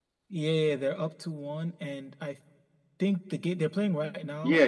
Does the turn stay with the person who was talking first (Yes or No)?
No